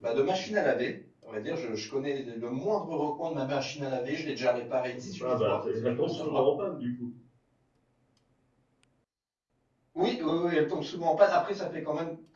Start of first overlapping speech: 5.2 s

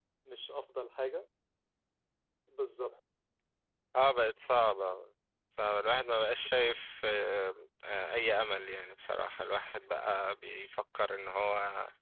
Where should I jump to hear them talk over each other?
none

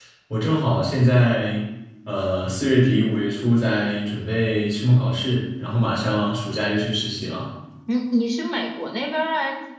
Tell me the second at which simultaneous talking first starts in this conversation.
none

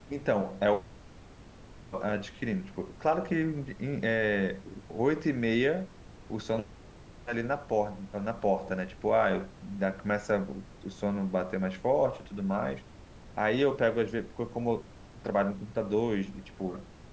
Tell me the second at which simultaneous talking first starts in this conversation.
none

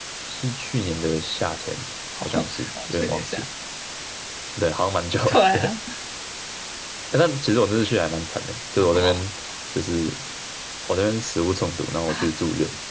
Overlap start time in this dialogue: 2.2 s

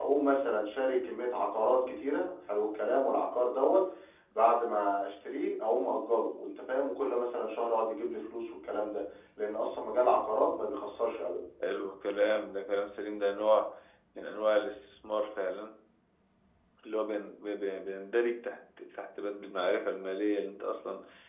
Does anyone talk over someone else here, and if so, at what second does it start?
none

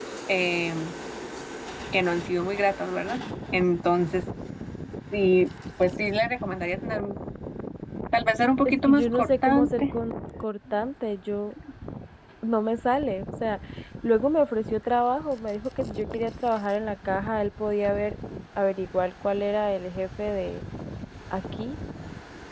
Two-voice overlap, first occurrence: 8.6 s

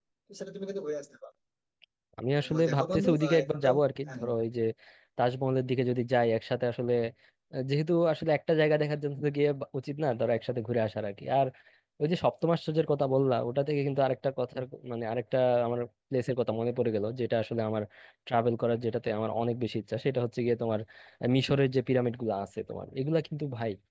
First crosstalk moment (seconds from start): 2.4 s

